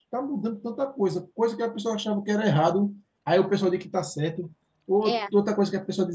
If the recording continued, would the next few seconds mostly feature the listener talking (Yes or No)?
No